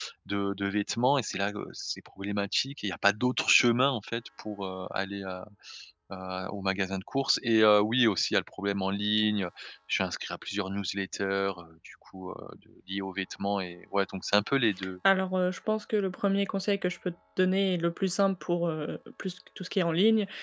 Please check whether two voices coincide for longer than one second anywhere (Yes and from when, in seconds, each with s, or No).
No